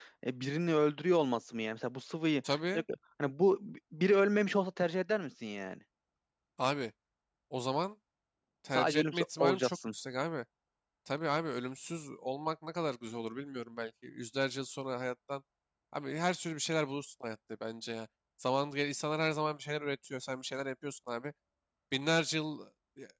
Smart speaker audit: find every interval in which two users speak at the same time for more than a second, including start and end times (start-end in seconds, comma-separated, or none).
8.7-9.9